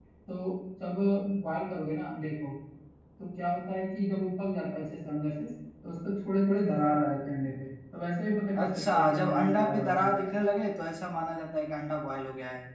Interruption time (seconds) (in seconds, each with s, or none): 8.6 s